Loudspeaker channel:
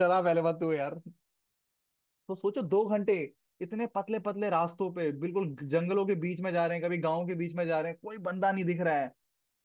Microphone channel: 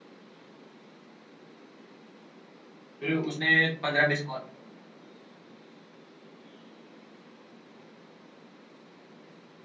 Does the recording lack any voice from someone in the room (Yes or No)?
No